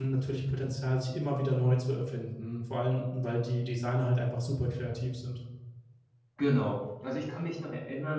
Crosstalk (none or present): none